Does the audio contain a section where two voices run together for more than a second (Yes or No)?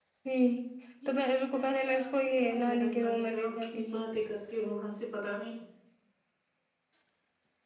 Yes